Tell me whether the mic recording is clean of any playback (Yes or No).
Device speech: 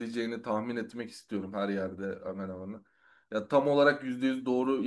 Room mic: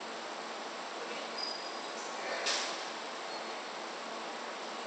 Yes